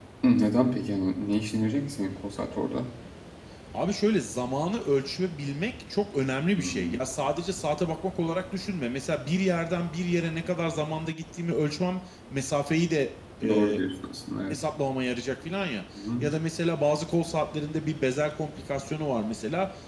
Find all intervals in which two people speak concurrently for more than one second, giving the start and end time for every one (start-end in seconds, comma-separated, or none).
none